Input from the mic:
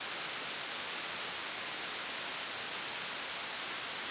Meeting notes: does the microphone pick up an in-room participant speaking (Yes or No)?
No